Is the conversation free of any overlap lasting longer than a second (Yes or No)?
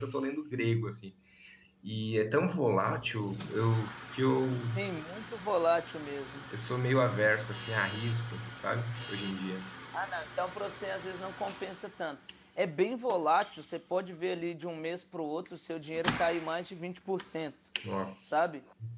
Yes